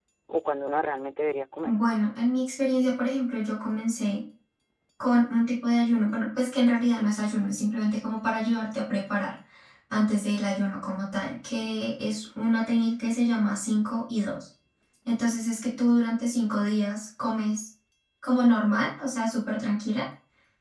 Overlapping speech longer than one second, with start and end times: none

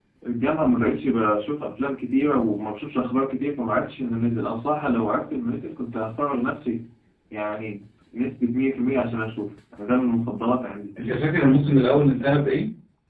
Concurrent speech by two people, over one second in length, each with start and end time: none

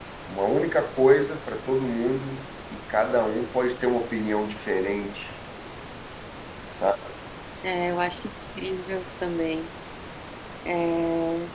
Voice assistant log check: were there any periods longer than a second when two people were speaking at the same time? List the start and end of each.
none

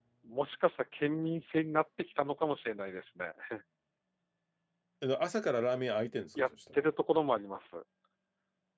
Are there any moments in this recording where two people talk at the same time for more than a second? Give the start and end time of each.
none

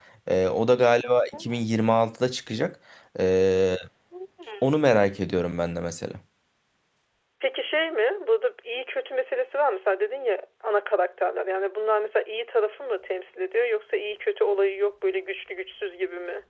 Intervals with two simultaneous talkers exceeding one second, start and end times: none

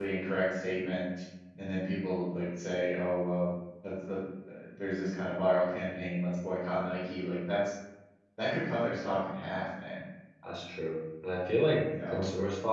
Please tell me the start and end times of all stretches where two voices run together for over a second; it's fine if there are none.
none

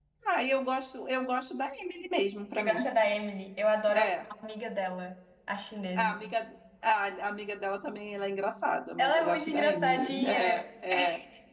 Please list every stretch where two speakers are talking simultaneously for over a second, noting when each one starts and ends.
9.0-10.7

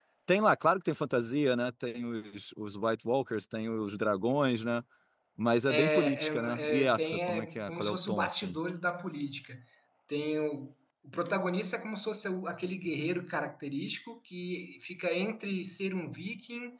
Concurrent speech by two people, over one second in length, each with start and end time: 5.7-8.6

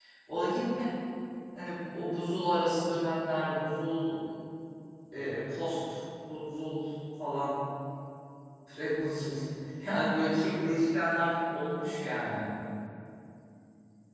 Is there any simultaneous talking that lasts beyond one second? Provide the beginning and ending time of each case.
none

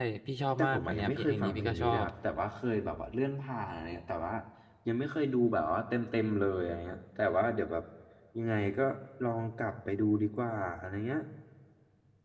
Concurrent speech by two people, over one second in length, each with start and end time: 0.6-2.0

